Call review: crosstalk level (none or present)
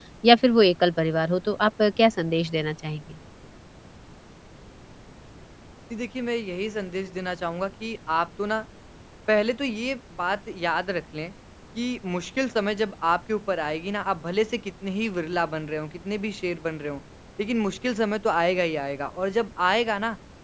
none